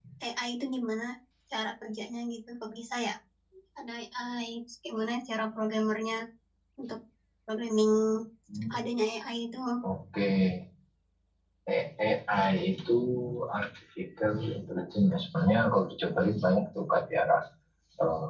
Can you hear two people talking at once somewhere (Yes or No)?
No